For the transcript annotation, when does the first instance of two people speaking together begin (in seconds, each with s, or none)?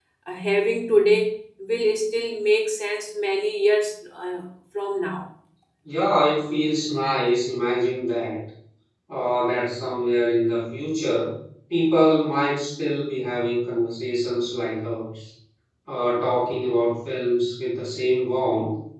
none